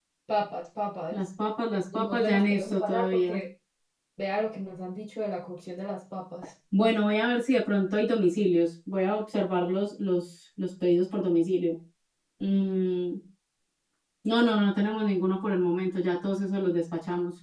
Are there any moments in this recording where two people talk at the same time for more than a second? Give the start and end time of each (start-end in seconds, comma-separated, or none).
1.9-3.4